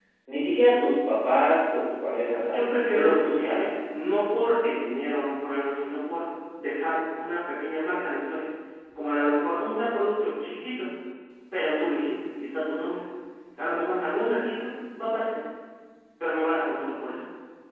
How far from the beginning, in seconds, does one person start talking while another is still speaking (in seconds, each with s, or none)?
2.3 s